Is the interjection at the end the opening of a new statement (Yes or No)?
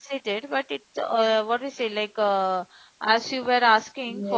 Yes